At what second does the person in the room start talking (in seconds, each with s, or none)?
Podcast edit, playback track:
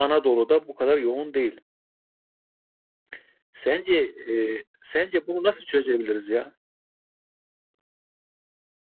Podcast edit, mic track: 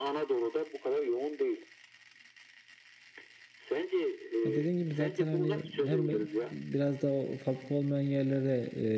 4.4 s